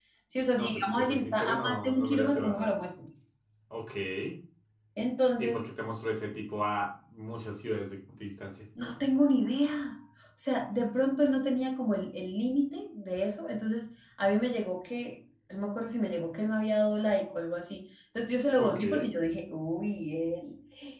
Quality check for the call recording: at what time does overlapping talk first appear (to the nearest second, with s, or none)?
1 s